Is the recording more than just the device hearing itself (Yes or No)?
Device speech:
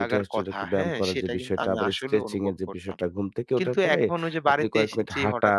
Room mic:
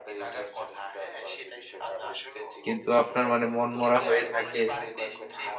Yes